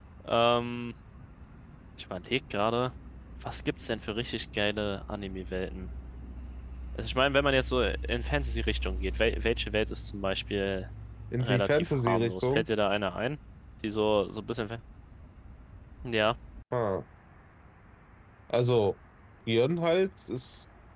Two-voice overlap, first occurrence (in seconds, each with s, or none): 11.4 s